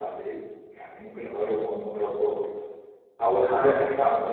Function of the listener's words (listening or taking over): listening